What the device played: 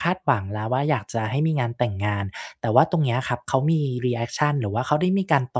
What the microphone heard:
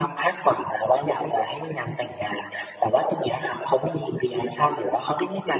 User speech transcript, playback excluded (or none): none